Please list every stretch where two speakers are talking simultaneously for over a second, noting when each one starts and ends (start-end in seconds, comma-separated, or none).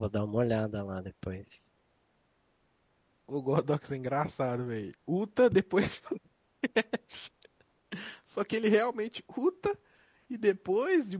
none